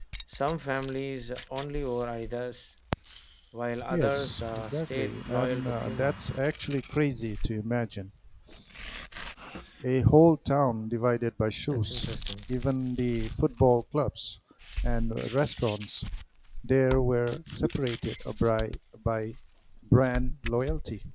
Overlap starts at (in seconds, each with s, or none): 3.9 s